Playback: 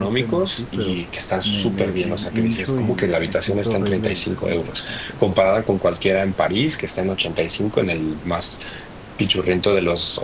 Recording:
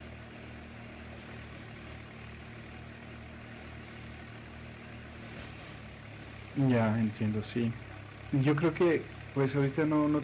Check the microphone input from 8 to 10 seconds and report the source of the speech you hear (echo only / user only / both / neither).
user only